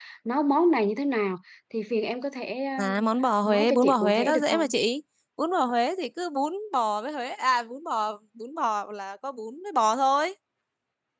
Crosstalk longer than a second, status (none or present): present